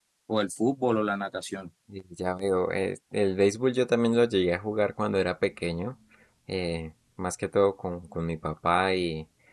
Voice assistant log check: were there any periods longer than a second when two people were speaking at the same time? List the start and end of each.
none

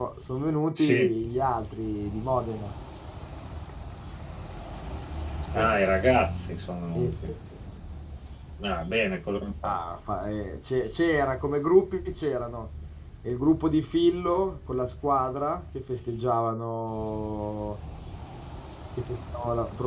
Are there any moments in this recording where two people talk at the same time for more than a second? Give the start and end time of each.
none

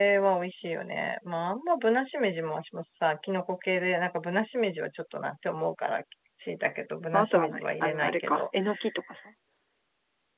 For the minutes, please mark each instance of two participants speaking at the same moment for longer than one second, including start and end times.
7.1-8.4

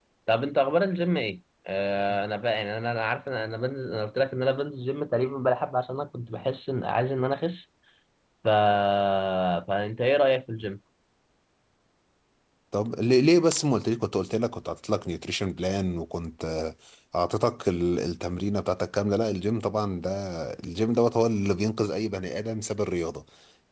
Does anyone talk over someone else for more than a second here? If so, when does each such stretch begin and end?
none

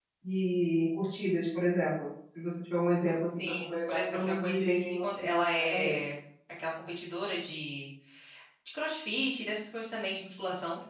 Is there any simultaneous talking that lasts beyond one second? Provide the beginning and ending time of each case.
3.4-6.1

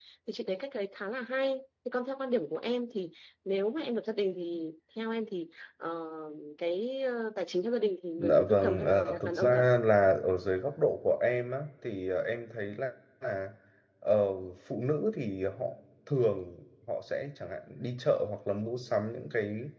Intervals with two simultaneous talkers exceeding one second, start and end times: 8.2-9.6

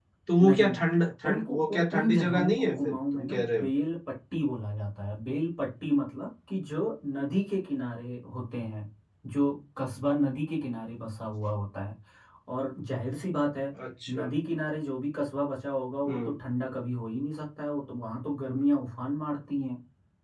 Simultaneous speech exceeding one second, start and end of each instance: 1.2-3.7

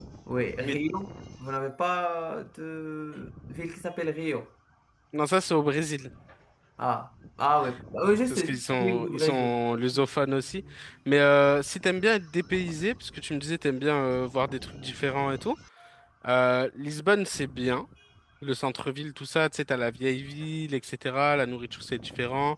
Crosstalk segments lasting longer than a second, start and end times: 8.3-9.5

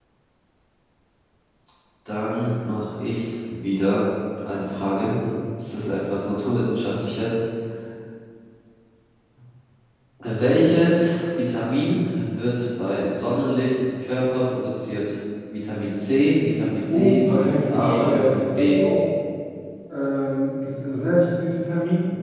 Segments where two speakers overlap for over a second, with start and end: 16.9-18.8

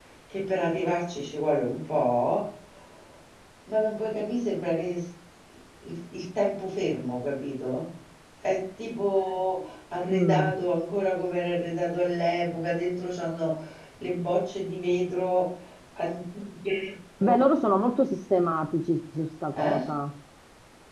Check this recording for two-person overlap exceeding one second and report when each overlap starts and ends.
none

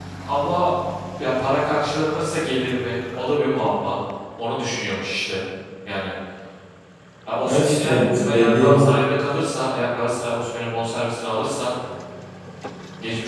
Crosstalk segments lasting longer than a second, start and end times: 7.5-8.9

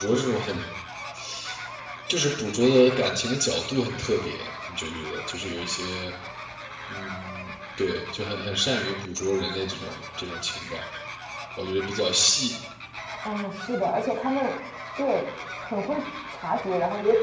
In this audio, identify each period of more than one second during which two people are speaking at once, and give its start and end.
none

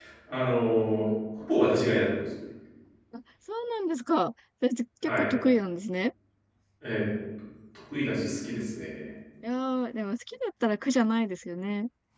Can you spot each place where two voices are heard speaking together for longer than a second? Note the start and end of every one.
none

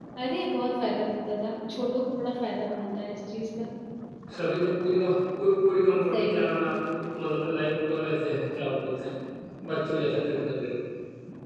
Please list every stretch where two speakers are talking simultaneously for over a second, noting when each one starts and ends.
none

